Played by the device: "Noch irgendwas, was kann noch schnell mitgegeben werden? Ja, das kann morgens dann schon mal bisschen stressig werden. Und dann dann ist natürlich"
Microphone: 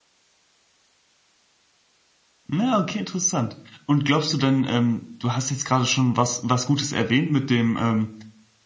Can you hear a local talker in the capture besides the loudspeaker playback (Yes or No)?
Yes